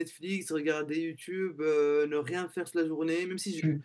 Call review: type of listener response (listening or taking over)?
taking over